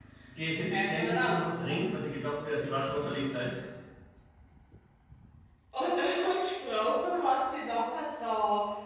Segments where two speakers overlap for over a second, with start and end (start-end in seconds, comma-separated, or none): 0.6-1.9